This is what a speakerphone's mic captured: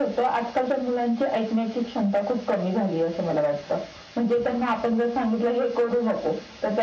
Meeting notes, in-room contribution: none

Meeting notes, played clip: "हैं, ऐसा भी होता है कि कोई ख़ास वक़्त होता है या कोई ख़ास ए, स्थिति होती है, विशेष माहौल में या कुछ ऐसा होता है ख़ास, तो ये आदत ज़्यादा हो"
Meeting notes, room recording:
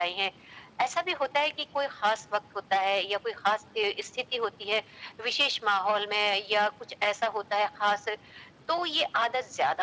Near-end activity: none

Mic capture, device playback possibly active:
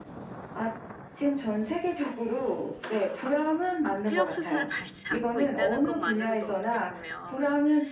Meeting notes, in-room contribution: present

